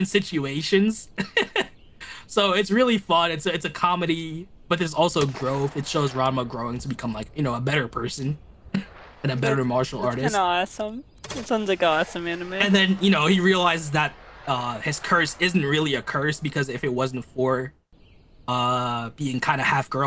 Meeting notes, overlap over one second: none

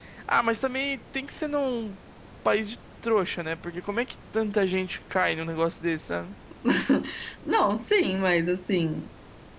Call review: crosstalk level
none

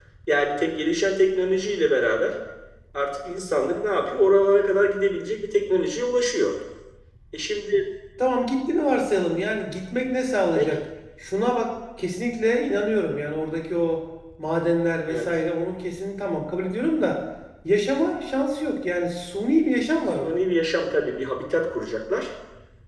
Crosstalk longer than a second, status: none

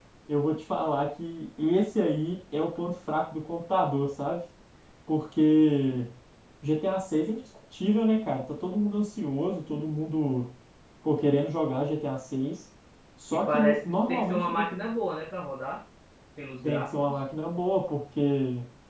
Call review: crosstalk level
present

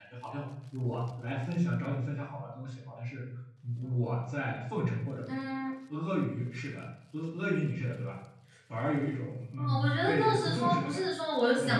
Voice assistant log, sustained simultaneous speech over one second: present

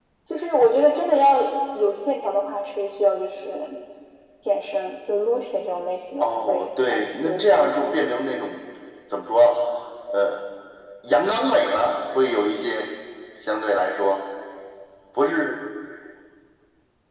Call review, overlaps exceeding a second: present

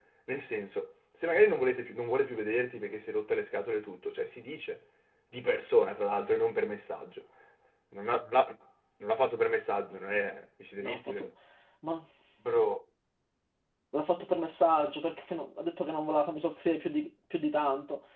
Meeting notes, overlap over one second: none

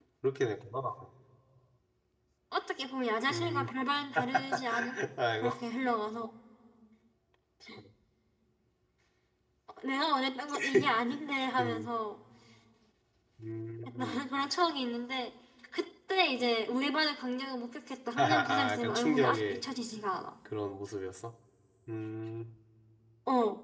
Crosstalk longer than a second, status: present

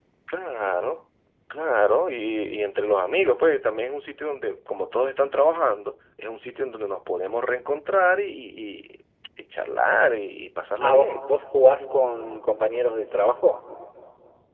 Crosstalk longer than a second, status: none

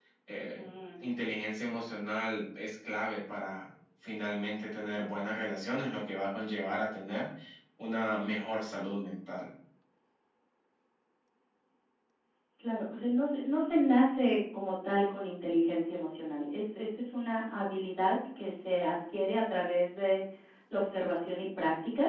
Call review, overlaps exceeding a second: none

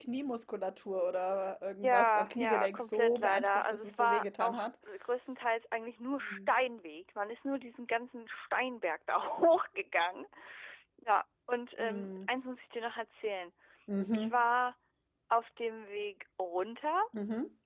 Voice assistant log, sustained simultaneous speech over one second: present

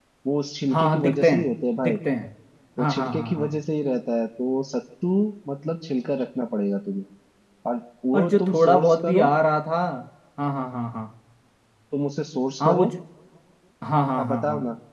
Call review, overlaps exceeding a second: present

